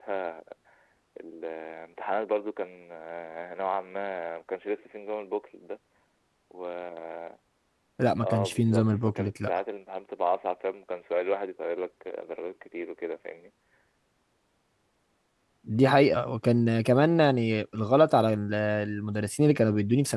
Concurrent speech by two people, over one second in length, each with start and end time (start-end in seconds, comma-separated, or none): 8.2-9.6